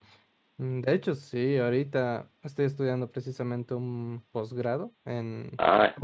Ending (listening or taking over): listening